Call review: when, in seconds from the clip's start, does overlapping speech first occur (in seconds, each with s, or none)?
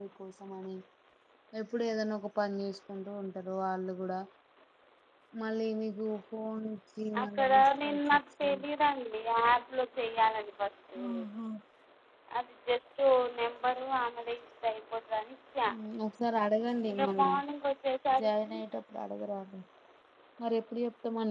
7.2 s